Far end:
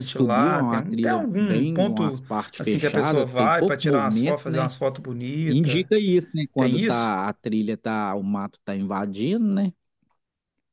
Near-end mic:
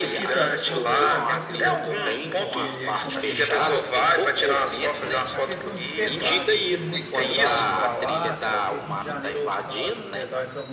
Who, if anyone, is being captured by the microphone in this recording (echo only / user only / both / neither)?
both